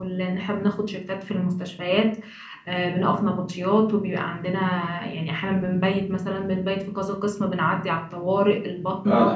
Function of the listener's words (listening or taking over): listening